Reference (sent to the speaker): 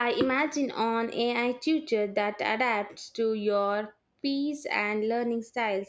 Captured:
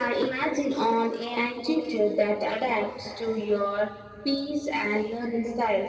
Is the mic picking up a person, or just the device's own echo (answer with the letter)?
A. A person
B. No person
B